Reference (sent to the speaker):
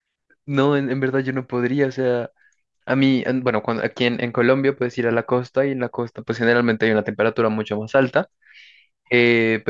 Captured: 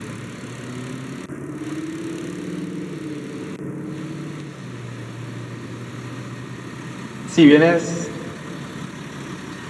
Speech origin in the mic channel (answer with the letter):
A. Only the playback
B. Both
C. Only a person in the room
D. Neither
C